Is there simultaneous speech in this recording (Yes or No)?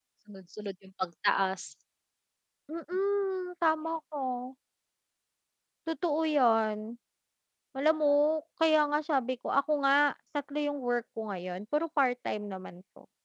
No